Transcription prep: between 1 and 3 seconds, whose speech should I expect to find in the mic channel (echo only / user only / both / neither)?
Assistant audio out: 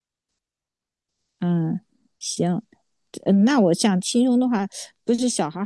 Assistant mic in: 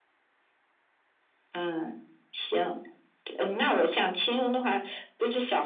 echo only